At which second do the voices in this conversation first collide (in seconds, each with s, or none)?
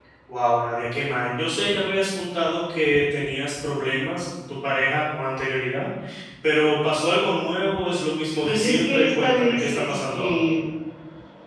8.4 s